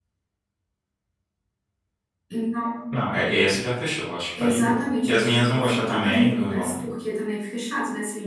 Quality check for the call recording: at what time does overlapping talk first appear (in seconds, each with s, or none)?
4.4 s